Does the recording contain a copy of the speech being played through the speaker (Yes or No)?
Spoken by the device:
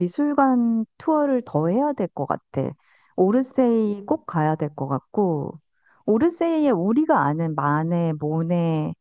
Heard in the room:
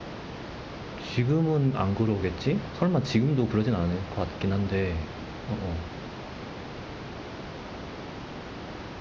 No